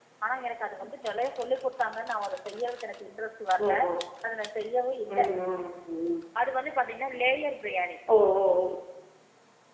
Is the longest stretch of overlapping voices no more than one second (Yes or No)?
Yes